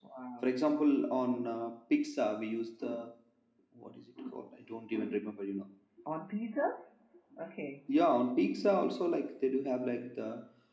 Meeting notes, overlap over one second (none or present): none